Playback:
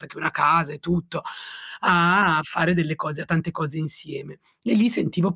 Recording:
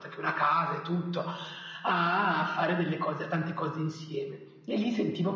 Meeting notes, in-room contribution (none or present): none